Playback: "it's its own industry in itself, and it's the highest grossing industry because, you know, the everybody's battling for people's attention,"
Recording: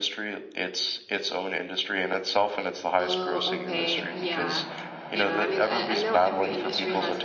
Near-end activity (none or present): present